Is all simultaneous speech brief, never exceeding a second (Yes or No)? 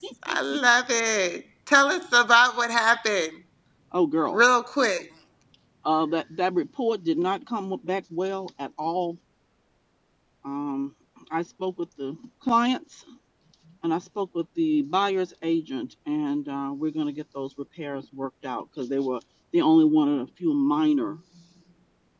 Yes